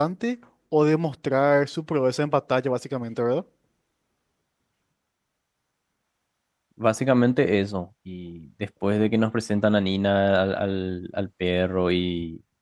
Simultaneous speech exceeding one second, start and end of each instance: none

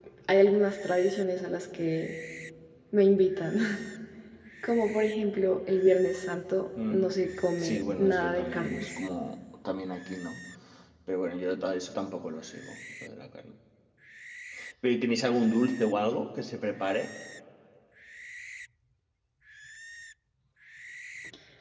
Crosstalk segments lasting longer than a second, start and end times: 7.6-9.0

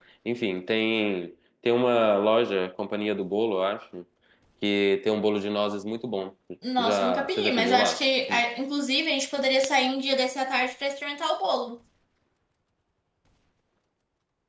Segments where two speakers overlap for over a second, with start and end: 6.8-8.4

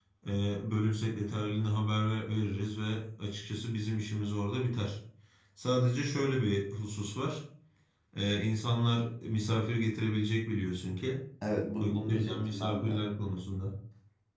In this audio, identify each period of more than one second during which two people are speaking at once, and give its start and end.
11.8-13.0

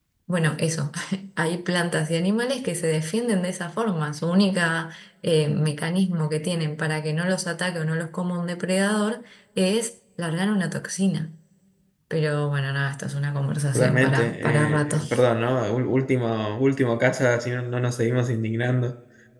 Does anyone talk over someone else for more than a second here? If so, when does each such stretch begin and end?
13.8-15.0

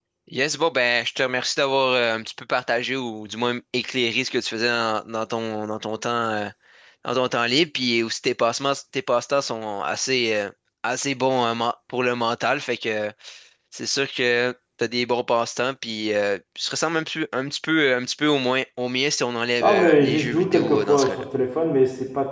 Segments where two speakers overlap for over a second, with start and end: 19.6-21.2

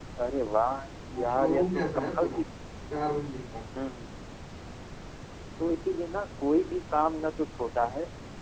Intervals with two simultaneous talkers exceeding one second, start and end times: 1.2-2.4

